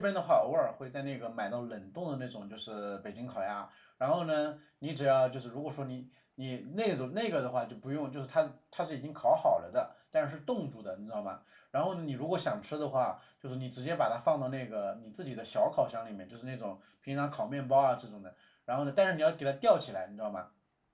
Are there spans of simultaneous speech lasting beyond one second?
No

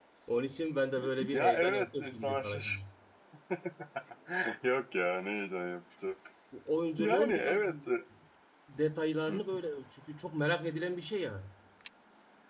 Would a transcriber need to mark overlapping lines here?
Yes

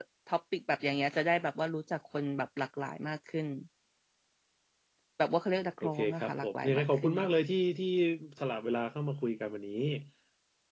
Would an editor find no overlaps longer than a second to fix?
No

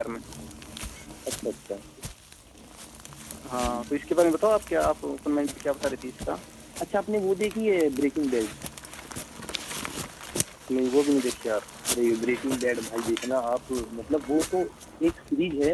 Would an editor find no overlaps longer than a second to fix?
Yes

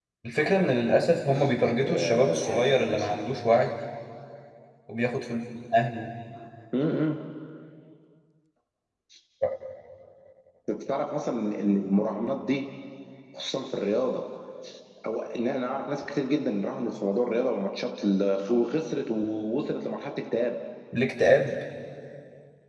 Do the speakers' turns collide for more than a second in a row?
Yes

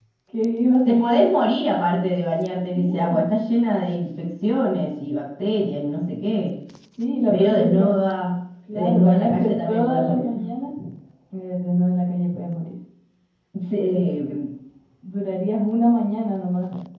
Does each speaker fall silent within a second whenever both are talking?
No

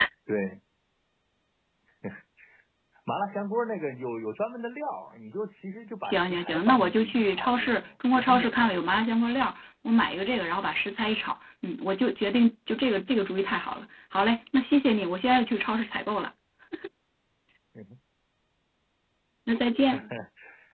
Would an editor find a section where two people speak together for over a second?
Yes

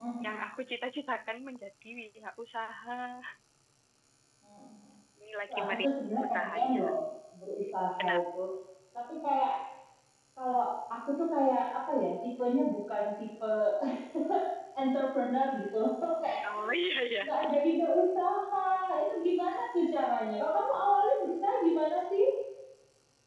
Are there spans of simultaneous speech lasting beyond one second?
Yes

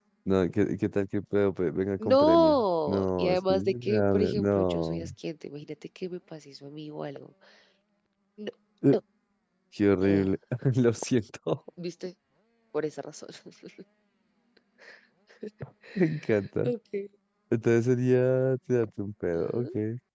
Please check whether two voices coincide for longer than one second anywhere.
Yes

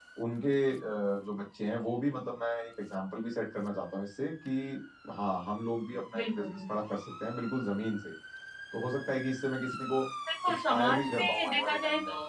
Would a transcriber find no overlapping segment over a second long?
No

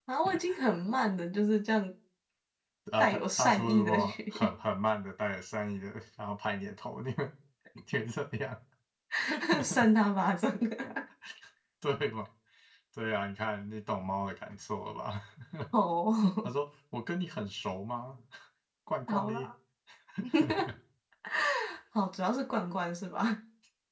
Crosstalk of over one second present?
Yes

